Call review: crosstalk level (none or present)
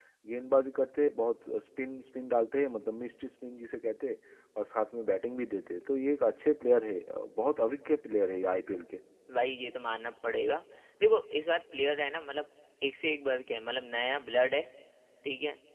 none